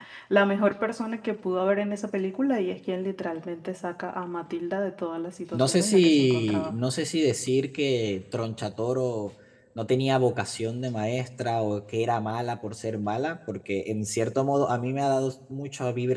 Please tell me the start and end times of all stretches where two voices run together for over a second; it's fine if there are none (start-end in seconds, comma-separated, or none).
5.5-6.8